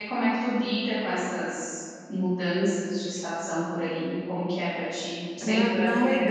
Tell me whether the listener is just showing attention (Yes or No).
No